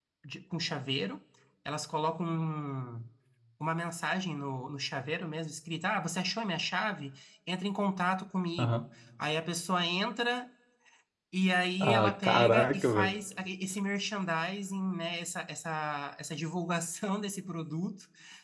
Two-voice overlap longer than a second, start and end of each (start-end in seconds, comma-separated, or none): 11.8-13.2